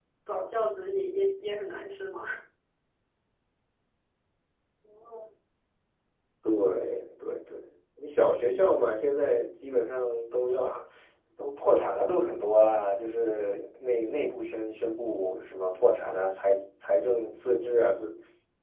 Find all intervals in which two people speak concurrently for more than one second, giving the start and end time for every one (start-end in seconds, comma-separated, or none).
none